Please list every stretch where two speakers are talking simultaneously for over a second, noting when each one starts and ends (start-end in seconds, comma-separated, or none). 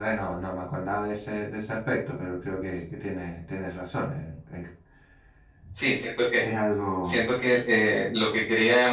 none